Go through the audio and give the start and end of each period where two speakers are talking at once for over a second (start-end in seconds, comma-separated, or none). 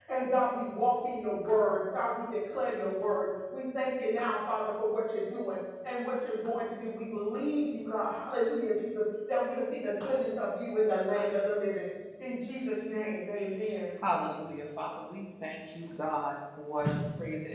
none